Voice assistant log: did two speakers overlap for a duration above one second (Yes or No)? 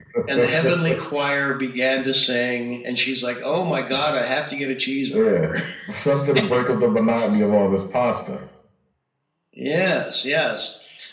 No